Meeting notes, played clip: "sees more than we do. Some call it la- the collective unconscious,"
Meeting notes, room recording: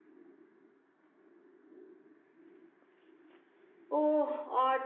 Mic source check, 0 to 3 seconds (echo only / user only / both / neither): neither